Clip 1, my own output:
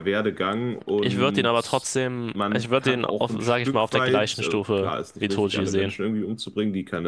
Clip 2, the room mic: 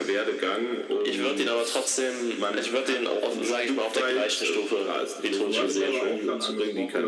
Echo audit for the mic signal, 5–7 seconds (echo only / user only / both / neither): both